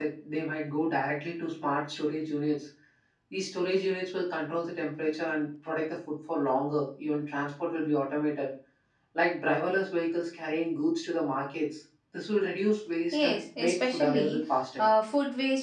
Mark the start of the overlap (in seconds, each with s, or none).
13.1 s